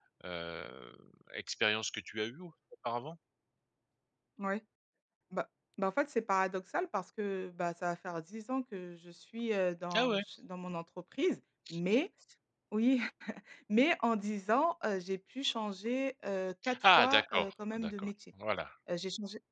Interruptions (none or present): present